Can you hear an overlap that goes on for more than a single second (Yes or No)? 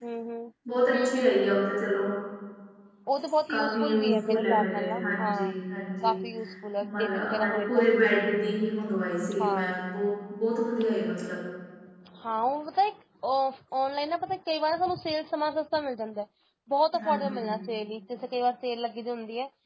Yes